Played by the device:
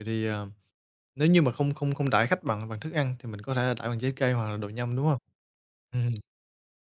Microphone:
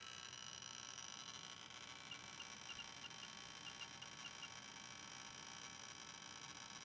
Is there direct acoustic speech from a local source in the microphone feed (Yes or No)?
No